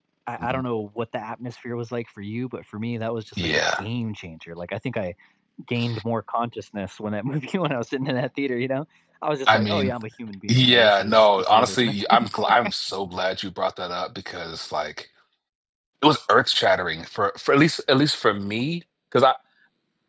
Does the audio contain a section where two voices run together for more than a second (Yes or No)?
Yes